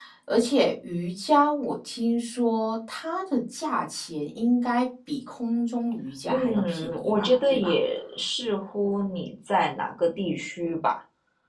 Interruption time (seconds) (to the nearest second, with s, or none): 6 s